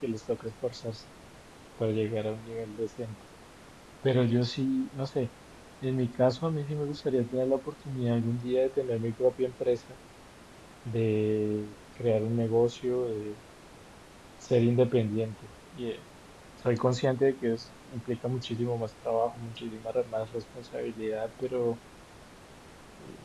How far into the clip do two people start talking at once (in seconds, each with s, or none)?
none